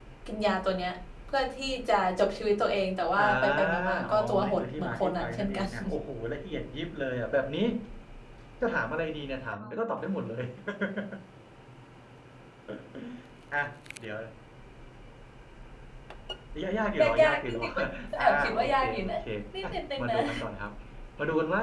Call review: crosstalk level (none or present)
present